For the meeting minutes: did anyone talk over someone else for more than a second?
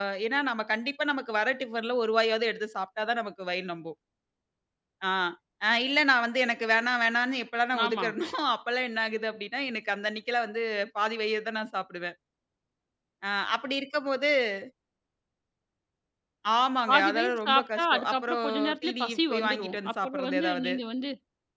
Yes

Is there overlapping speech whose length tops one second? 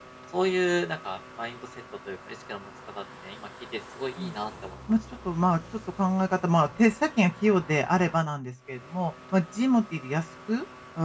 No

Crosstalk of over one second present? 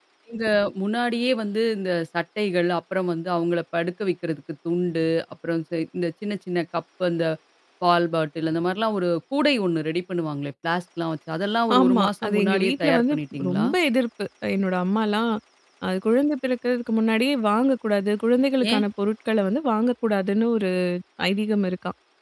Yes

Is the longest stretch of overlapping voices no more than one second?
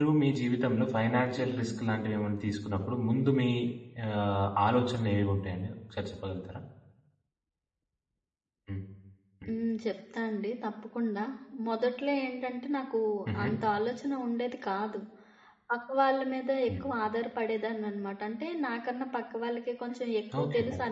Yes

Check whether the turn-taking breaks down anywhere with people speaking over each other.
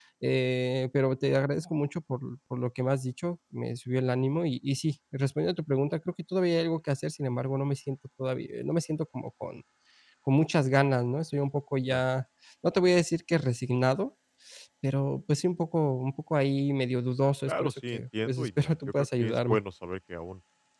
Yes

